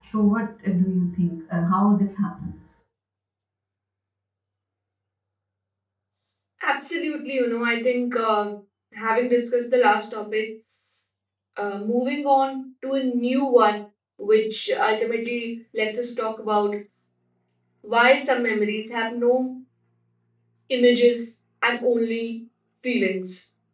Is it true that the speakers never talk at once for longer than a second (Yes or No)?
Yes